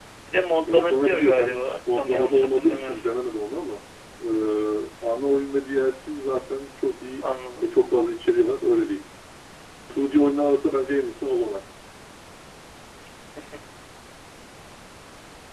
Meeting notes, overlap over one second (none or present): present